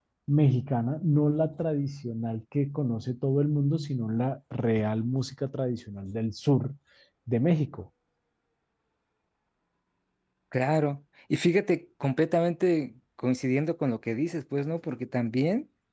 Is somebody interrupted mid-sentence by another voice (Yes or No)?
No